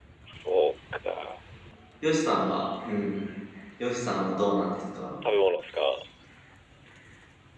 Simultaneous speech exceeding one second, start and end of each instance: none

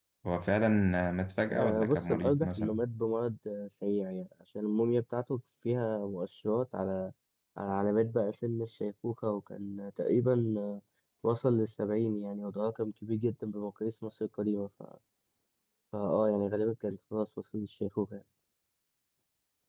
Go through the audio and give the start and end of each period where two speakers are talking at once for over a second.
1.5-2.8

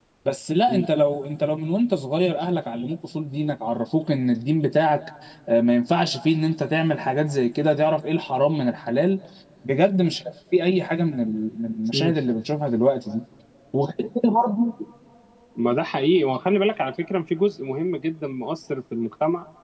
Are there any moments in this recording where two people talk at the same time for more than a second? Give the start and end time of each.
none

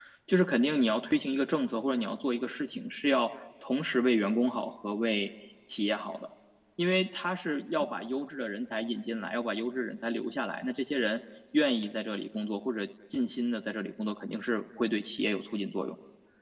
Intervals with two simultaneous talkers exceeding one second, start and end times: none

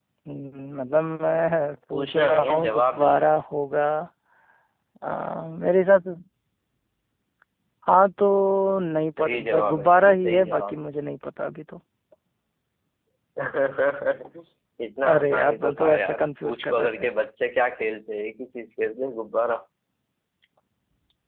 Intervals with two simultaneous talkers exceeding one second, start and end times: 1.9-3.2, 9.2-10.8, 15.1-17.1

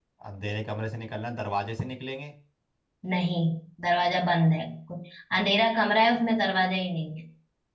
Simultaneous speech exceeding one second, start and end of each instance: none

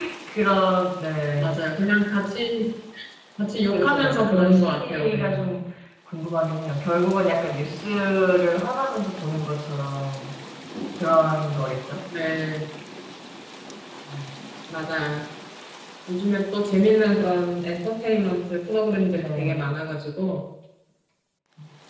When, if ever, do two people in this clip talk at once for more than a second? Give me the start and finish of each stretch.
3.7-5.5

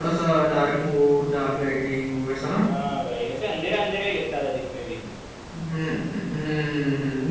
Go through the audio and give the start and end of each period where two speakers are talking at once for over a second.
none

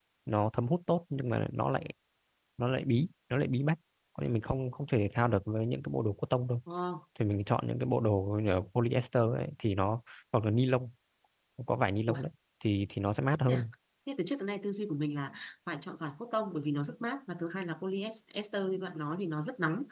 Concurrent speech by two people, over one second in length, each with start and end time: none

